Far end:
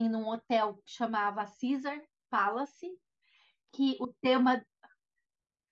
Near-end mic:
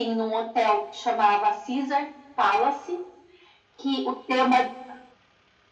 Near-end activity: none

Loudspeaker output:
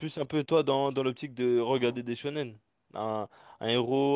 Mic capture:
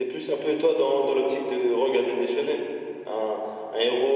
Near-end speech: none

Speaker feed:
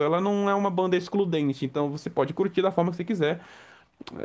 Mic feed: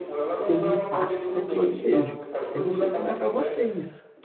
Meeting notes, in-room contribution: present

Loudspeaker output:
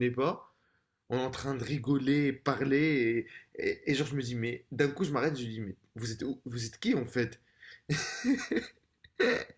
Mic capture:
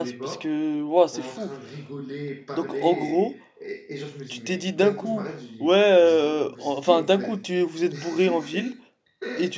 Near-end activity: present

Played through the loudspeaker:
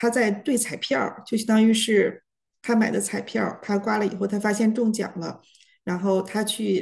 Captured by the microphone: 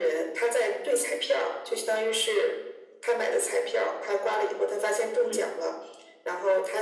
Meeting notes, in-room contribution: present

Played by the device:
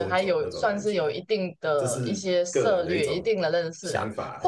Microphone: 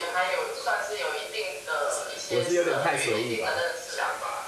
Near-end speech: present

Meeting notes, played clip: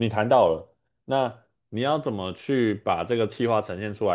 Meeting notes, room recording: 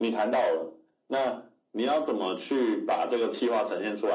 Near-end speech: none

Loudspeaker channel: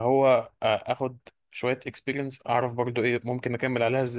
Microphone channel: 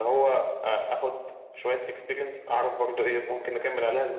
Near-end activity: none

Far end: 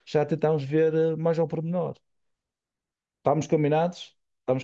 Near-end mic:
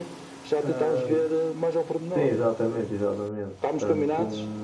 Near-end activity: present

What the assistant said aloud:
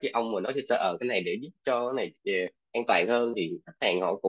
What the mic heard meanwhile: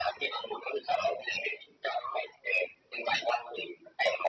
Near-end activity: none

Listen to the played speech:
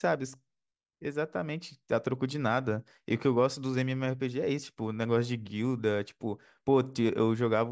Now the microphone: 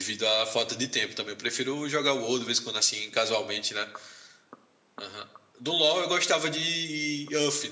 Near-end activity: present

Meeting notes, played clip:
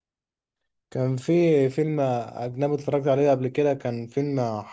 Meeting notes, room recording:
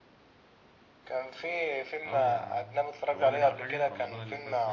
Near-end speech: present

